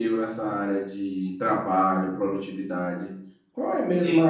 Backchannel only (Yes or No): Yes